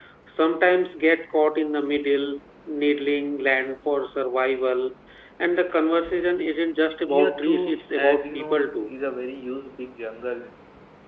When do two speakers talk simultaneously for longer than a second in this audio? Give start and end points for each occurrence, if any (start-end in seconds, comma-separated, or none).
7.2-8.9